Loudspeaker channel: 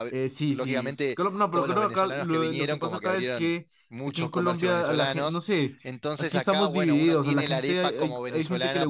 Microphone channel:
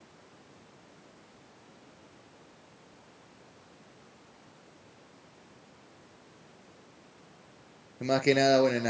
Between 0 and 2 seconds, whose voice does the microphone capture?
neither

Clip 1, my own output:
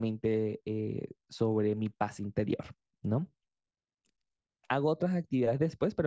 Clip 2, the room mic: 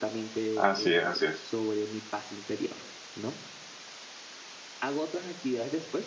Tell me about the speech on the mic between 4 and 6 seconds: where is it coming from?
echo only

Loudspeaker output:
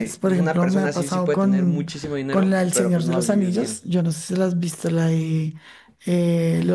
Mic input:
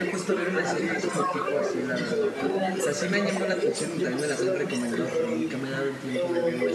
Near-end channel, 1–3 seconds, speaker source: both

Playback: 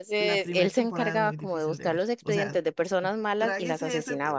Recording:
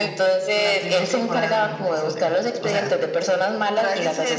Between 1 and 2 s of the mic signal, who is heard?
echo only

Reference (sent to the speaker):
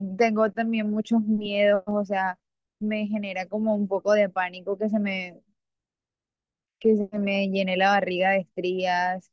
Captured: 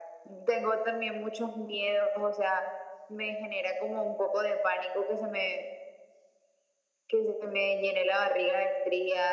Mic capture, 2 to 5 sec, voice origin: echo only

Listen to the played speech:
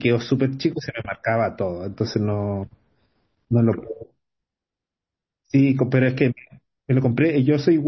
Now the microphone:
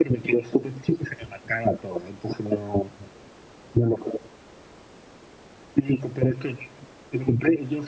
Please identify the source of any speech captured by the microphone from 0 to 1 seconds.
echo only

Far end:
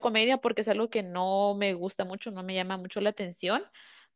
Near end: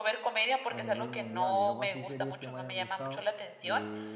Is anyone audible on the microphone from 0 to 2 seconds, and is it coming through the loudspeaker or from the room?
both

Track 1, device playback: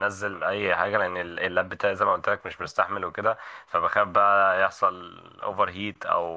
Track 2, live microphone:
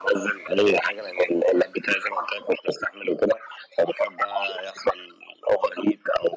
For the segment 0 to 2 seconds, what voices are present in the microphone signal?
echo only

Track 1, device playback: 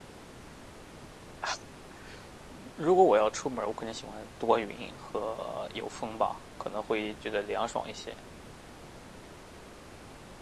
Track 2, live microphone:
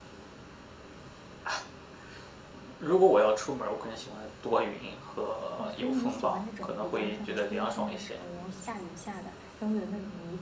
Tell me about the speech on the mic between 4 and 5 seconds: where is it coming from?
echo only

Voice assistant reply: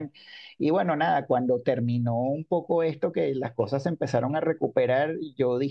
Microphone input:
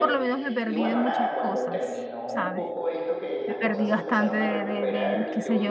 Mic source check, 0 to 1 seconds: both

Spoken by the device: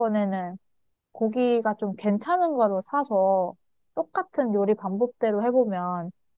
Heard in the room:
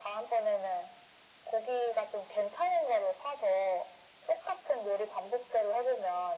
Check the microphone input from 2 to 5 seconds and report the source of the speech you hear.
echo only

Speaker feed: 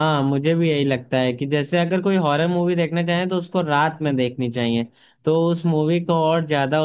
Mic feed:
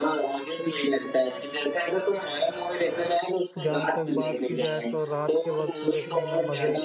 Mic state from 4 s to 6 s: both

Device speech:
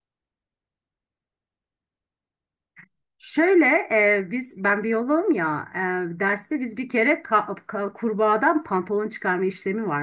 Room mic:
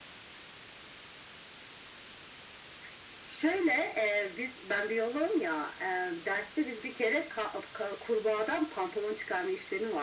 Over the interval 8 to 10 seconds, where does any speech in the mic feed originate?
echo only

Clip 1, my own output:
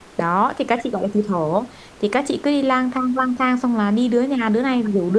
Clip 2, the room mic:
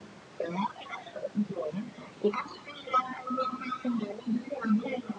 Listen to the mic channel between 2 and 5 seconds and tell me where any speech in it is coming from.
echo only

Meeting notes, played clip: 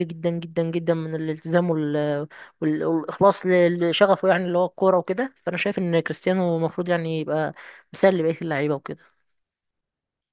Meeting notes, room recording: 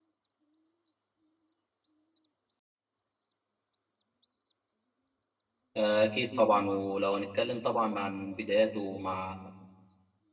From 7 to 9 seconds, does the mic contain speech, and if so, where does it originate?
user only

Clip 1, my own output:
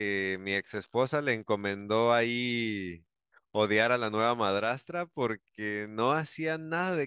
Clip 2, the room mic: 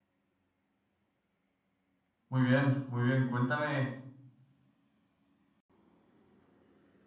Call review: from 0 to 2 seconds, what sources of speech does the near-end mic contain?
neither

